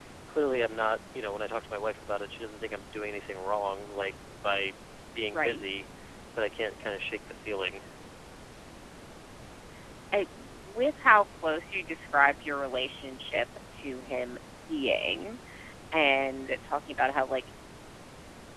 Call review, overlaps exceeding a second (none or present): none